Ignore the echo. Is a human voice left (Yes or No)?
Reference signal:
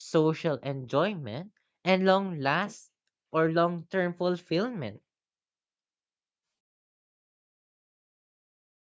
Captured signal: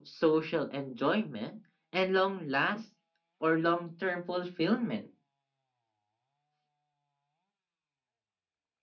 No